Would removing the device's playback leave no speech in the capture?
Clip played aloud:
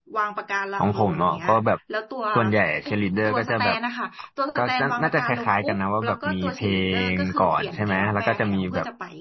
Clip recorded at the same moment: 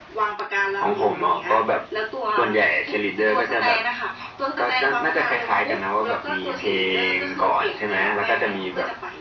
Yes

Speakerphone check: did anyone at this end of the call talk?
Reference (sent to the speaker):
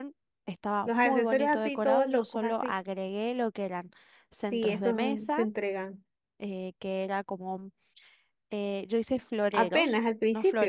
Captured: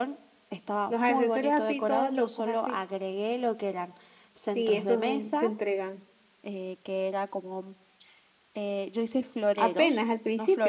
No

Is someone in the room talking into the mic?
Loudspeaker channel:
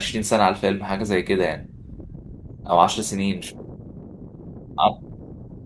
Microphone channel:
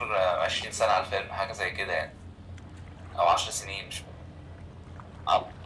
No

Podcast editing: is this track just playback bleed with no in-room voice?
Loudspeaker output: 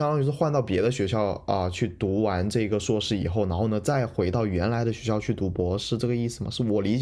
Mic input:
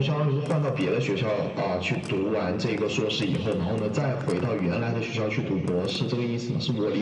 Yes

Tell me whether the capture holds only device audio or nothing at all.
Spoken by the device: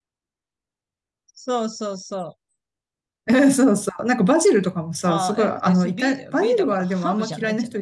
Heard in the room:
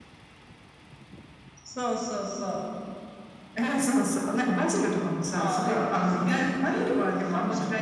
Yes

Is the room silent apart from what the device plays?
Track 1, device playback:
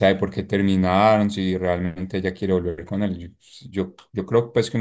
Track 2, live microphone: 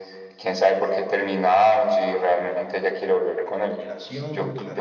No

